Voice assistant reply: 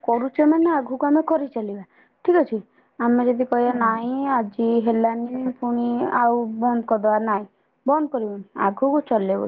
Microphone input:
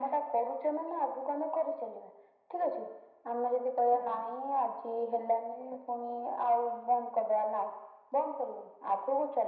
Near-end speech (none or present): none